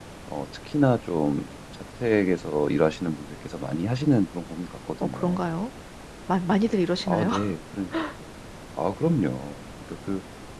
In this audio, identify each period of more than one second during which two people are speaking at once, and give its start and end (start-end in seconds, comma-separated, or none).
none